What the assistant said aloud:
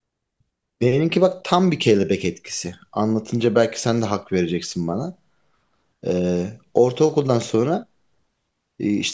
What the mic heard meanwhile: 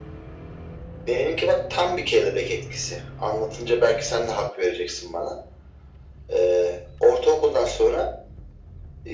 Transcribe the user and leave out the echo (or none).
none